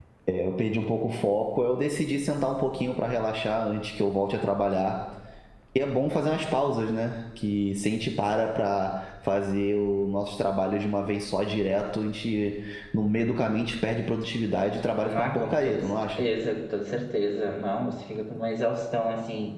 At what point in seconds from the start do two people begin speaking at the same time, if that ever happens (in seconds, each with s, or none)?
15.0 s